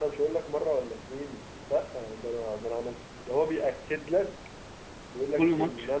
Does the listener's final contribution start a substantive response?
No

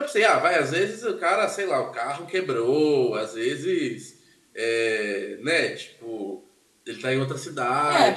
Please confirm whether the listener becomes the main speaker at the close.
Yes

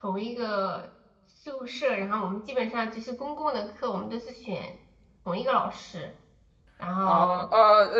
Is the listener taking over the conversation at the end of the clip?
Yes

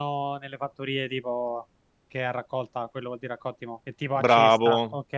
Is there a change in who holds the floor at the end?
Yes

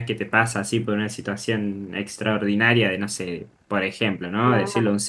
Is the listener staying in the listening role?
Yes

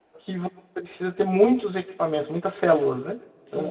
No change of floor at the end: No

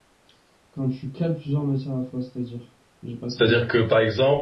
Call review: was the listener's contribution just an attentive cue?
No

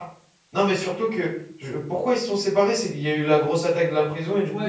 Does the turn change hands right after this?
Yes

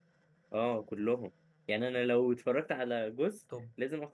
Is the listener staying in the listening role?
Yes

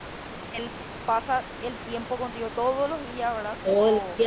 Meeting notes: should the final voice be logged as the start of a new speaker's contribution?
Yes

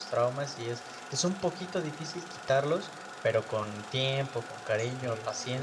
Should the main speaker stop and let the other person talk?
No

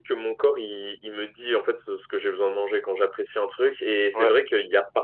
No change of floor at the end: Yes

